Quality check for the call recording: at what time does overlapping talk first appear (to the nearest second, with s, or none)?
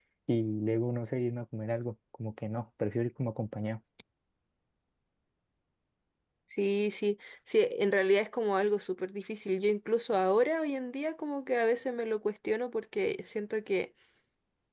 none